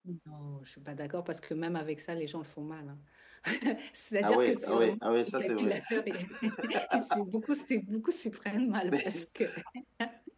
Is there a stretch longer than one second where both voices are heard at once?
Yes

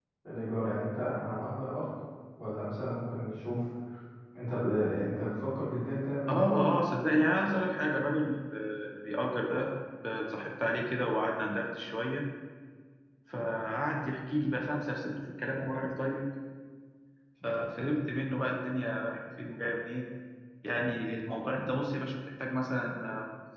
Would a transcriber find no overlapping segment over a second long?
Yes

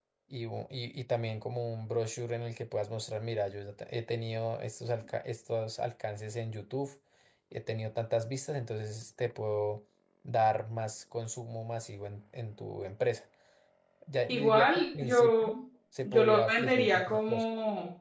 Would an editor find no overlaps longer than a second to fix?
No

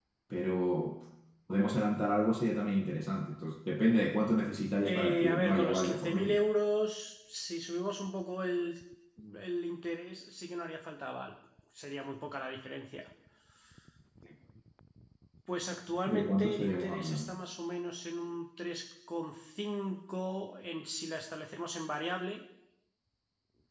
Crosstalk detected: Yes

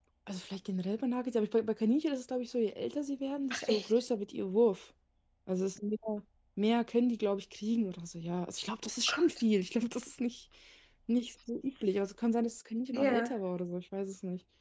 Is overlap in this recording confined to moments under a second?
Yes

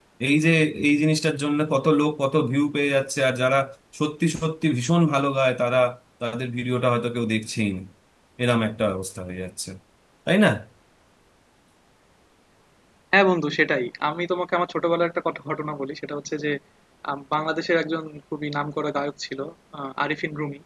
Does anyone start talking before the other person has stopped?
No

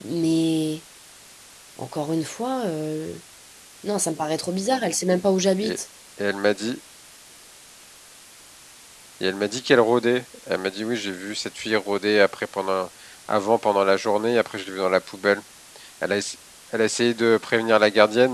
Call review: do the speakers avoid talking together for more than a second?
Yes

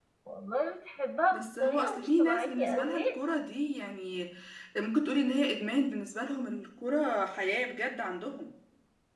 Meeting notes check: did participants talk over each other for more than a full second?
Yes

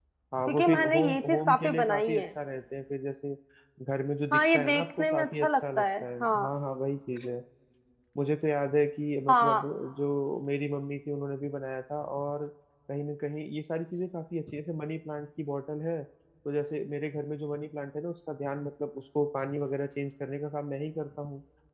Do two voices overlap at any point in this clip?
Yes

